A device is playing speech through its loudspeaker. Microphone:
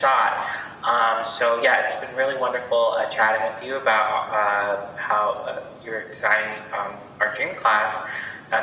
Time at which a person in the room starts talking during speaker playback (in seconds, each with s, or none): none